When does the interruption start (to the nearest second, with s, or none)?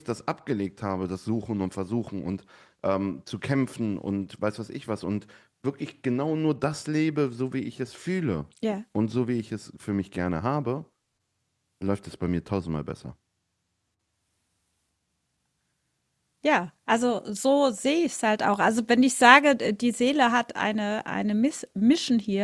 none